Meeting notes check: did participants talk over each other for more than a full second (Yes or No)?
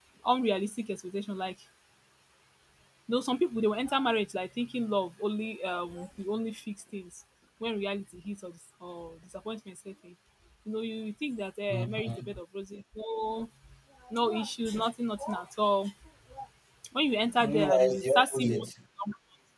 Yes